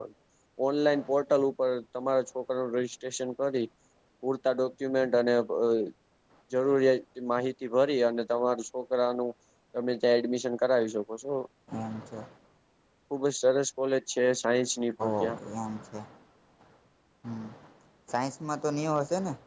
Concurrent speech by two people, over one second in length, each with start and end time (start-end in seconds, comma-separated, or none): none